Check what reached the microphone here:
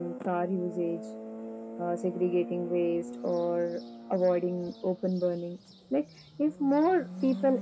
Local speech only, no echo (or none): none